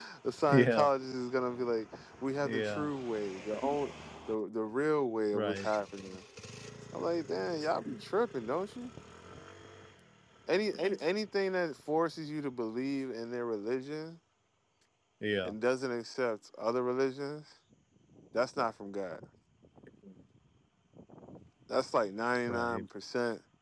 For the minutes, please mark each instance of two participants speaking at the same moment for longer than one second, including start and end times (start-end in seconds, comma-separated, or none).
none